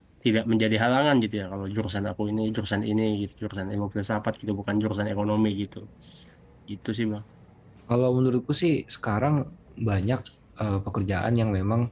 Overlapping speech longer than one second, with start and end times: none

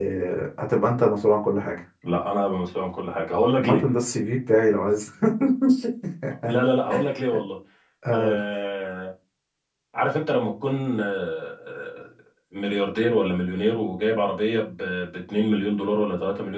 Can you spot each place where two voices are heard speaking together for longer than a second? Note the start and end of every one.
none

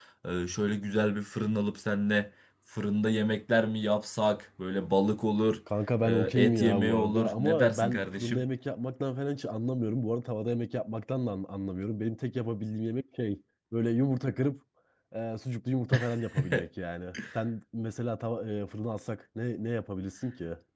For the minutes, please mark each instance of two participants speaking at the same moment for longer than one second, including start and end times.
6.0-8.4

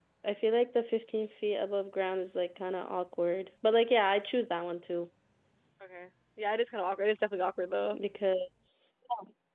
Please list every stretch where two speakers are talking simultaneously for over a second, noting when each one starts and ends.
none

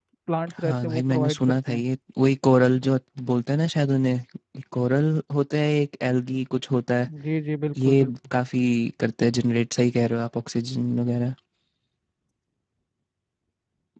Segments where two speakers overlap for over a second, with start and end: 0.6-1.8

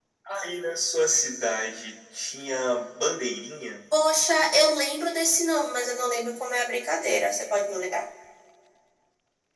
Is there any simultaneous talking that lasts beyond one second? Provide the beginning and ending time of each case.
none

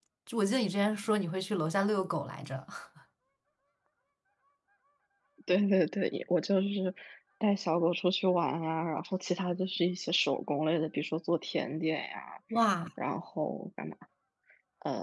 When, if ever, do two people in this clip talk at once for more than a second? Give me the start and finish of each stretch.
none

